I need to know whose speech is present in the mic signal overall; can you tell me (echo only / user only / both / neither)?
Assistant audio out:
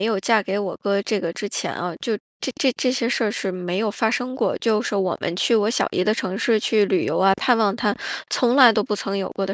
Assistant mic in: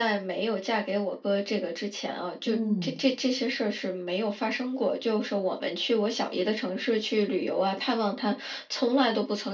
both